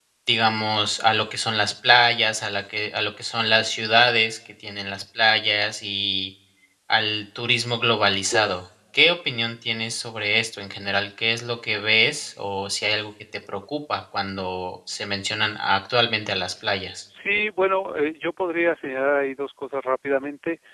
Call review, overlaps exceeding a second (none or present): none